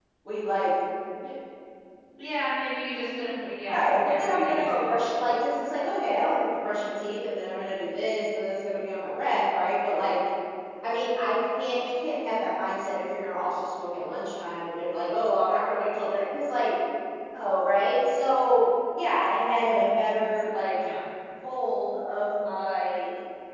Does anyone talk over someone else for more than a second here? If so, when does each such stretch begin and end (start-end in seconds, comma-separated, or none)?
3.7-4.9